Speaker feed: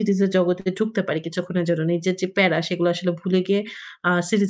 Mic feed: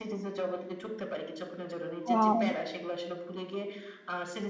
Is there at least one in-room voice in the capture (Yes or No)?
Yes